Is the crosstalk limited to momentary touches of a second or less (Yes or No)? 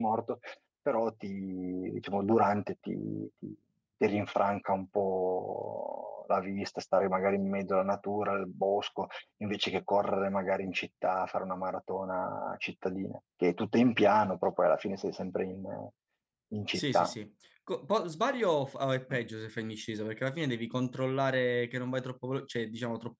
Yes